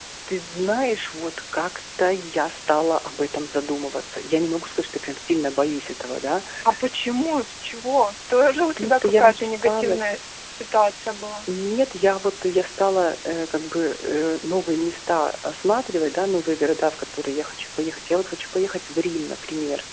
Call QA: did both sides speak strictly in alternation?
No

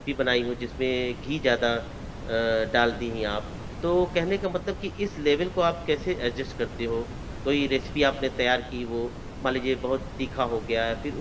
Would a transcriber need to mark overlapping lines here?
No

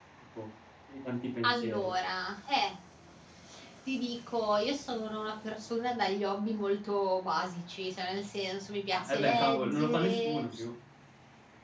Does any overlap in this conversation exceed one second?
Yes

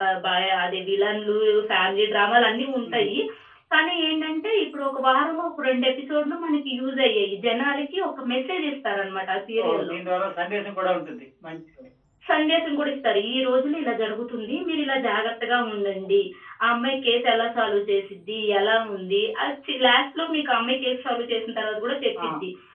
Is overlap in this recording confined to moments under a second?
Yes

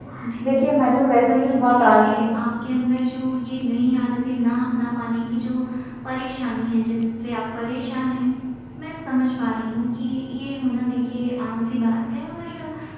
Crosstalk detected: Yes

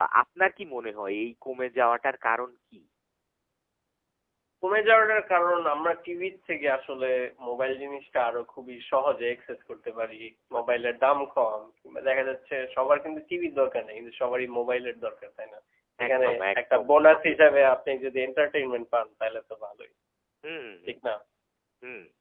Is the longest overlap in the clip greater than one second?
Yes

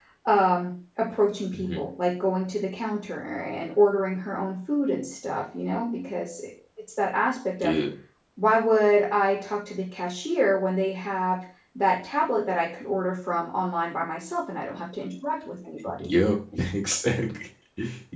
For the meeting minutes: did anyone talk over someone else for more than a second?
No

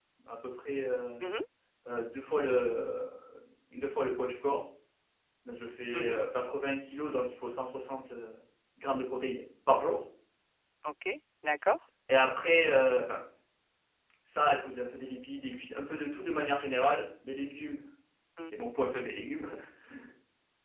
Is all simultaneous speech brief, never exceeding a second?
Yes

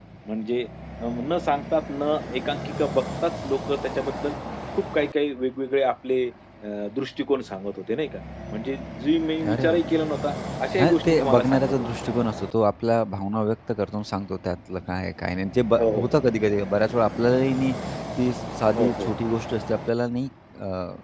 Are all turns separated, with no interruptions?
No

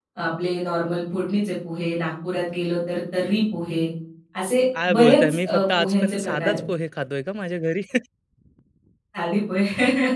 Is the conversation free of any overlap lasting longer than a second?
No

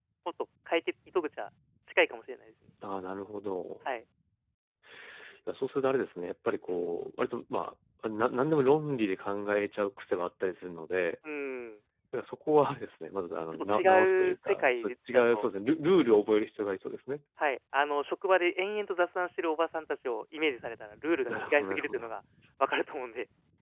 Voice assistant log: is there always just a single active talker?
No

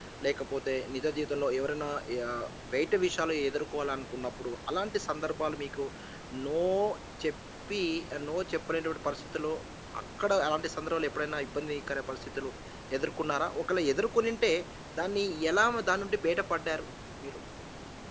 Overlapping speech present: No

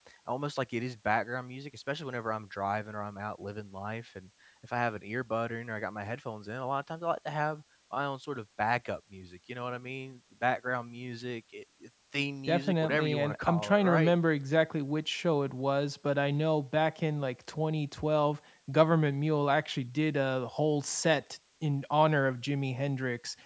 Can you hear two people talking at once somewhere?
Yes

